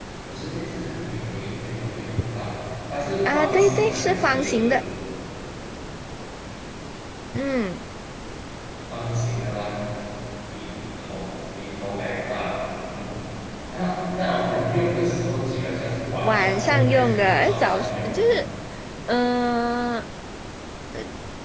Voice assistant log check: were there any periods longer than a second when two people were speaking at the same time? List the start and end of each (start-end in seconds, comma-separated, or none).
3.3-4.8, 16.2-18.2